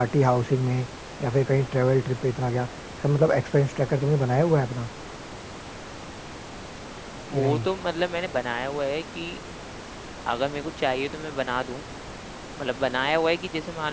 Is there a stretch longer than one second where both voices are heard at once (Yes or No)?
No